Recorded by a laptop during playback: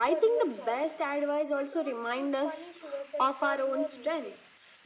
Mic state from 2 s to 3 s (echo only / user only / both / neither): both